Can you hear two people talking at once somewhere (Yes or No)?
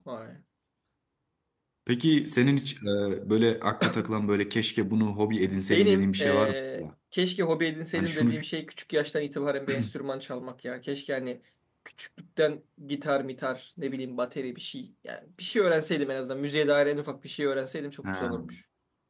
Yes